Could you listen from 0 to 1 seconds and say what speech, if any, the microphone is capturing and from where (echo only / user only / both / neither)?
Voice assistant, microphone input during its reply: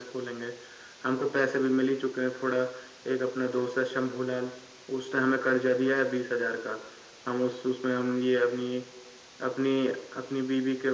echo only